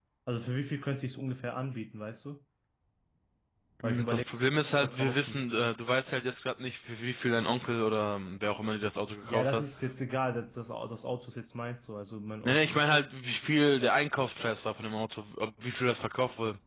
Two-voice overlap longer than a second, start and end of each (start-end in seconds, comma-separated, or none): 3.8-5.4